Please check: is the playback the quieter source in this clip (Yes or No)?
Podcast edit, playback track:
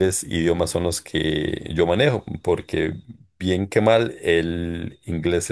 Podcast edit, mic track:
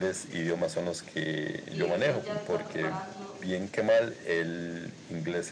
No